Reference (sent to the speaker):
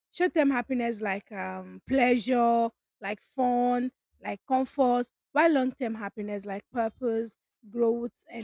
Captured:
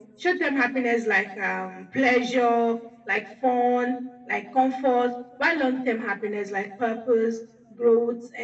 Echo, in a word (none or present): present